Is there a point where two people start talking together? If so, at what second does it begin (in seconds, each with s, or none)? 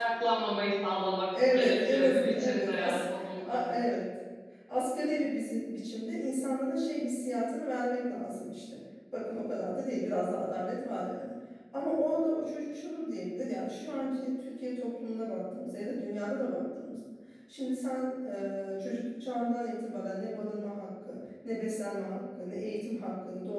1.3 s